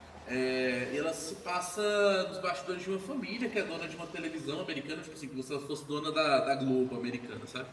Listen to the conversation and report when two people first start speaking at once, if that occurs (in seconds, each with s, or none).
none